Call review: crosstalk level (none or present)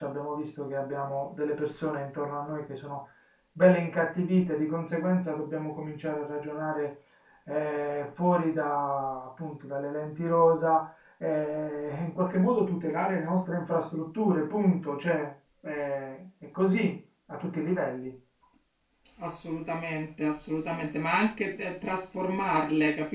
none